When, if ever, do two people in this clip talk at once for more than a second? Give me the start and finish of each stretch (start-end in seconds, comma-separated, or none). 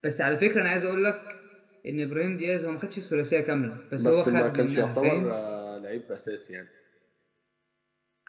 4.0-5.3